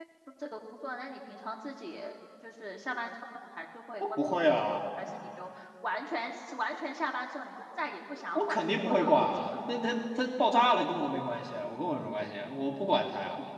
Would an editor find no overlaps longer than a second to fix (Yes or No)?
No